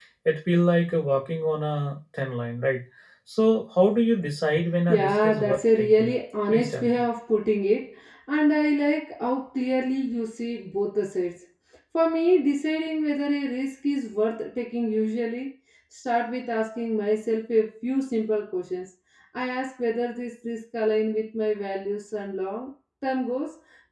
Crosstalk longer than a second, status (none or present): present